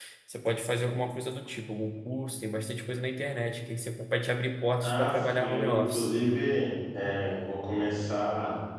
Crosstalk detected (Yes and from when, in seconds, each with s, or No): Yes, from 4.8 s